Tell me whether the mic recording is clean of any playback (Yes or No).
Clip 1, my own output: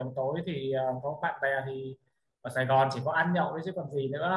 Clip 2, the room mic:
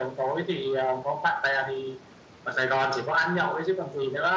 No